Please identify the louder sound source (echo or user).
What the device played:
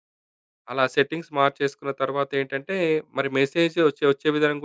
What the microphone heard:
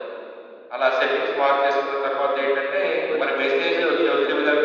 echo